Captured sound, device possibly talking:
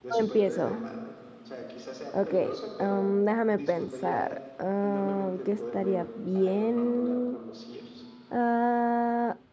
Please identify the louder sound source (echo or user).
user